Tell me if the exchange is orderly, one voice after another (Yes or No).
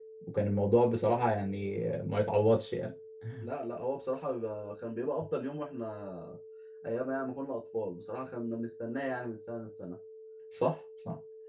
Yes